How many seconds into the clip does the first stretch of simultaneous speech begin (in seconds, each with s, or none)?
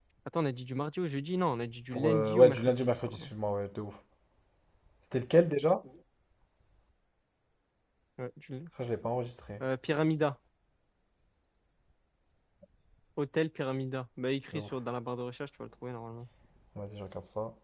1.9 s